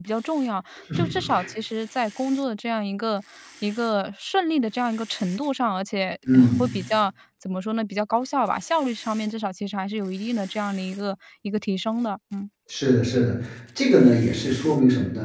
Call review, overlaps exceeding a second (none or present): none